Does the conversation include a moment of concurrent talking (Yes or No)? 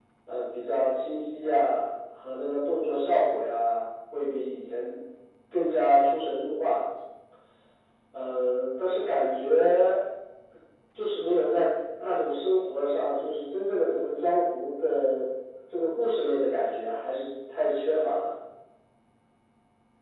No